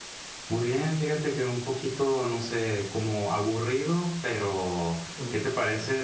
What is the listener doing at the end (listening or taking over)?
listening